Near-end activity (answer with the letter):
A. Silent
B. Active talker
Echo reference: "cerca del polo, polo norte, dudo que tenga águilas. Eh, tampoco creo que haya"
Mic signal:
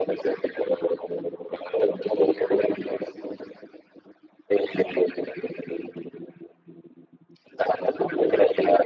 A